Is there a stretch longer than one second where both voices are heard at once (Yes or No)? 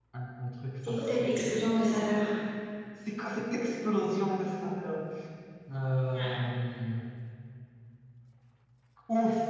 No